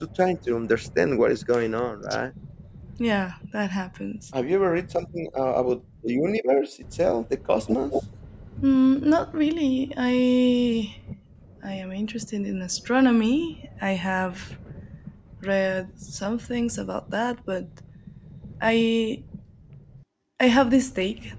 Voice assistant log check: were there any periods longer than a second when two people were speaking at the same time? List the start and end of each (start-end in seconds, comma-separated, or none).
none